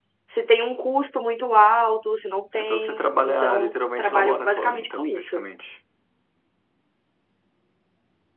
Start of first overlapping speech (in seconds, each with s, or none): 2.5 s